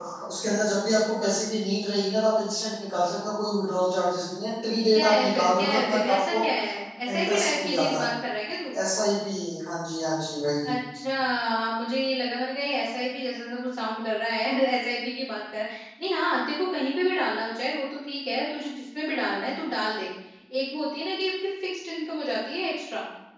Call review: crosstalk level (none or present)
present